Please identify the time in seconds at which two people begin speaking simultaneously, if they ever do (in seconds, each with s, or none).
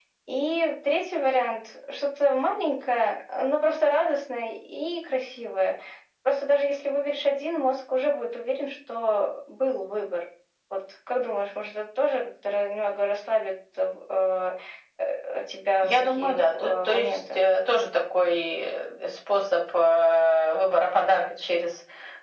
15.8 s